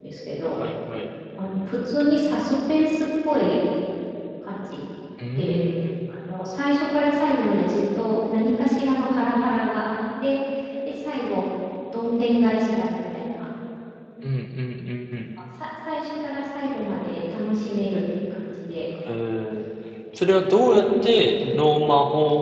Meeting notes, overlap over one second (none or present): none